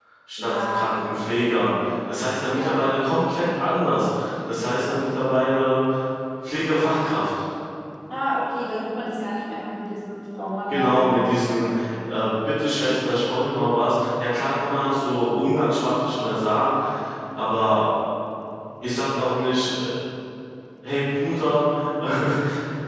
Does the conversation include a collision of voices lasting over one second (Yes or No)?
Yes